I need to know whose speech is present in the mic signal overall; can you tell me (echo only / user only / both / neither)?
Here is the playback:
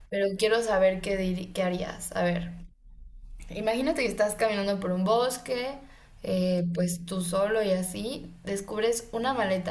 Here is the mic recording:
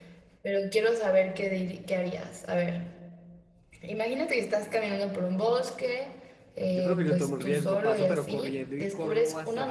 both